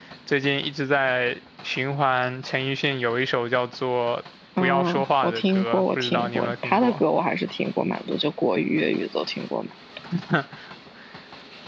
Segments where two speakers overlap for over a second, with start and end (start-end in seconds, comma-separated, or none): 4.6-7.0